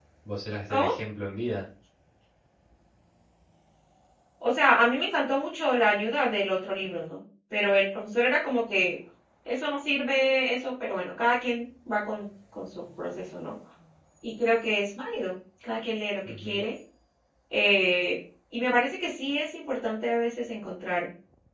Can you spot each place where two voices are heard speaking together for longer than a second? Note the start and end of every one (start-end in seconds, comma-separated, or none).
none